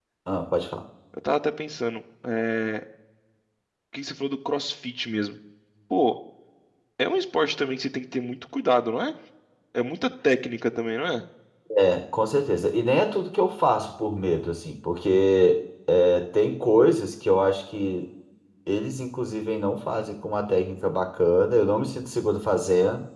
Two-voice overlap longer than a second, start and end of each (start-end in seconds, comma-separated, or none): none